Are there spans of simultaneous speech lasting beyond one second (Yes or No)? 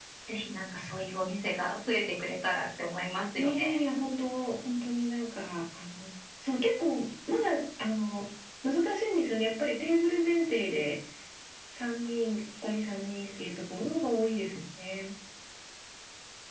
No